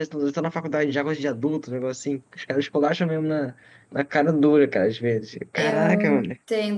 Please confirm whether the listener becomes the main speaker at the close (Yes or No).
Yes